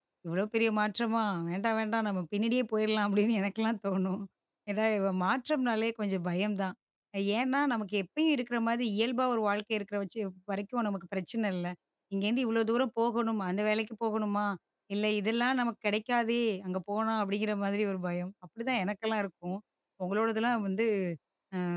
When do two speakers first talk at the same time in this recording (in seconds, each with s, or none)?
none